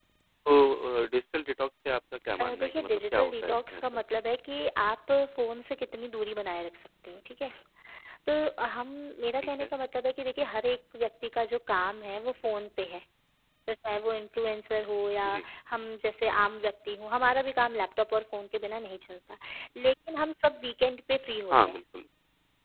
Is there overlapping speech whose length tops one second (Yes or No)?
Yes